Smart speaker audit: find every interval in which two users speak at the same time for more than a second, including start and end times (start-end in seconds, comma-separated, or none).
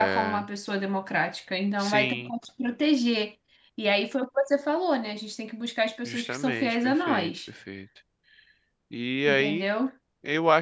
6.0-7.3